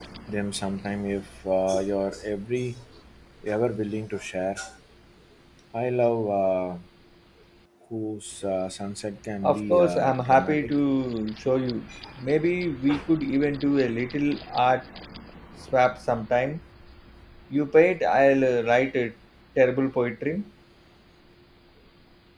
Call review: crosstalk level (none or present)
present